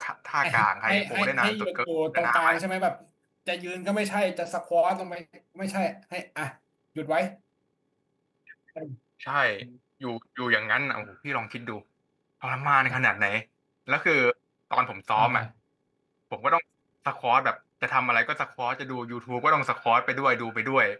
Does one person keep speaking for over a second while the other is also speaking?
Yes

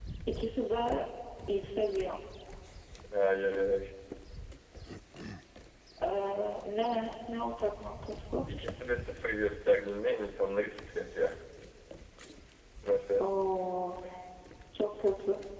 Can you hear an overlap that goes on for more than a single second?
No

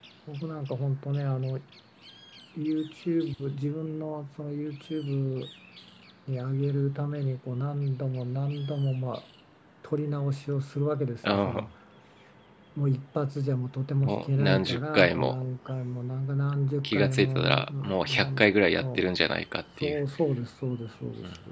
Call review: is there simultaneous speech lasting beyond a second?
Yes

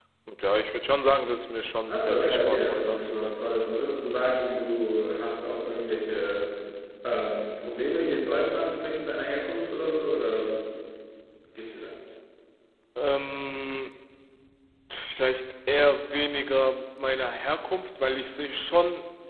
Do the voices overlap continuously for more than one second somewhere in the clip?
Yes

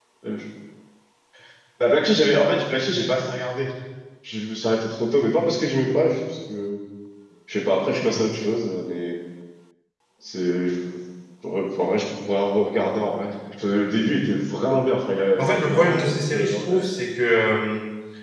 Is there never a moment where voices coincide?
No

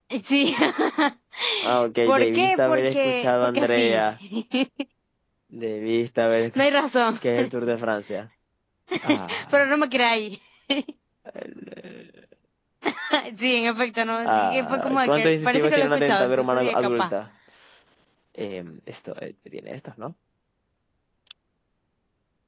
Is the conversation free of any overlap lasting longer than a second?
No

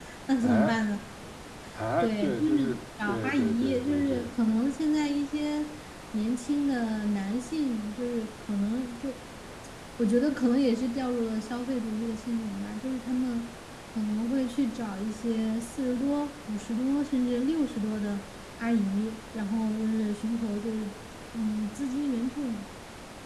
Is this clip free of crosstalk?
No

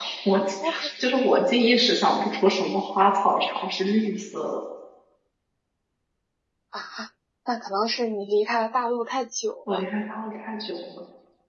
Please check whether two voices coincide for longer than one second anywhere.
No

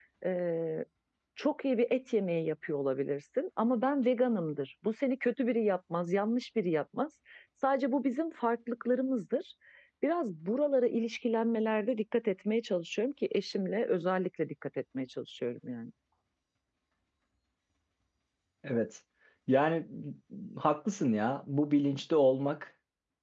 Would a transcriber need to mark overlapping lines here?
No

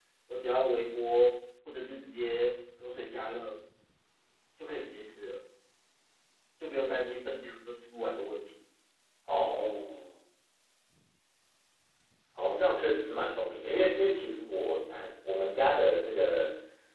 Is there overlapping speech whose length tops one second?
No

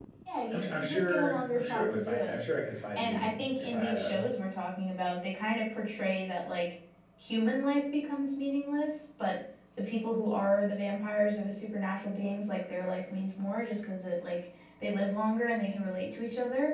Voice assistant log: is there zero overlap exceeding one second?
No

